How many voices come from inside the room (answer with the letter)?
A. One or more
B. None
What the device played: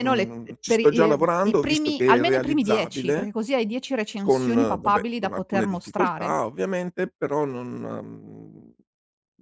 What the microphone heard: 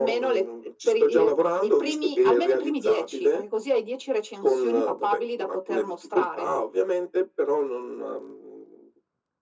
B